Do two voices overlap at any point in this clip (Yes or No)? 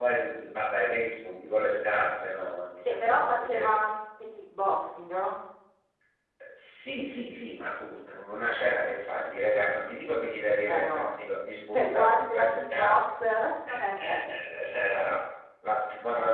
Yes